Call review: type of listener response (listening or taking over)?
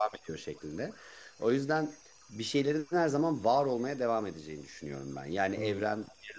listening